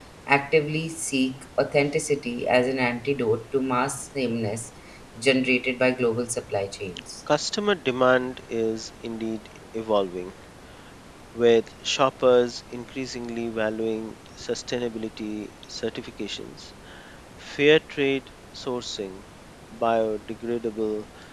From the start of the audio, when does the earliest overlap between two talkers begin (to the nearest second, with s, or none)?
none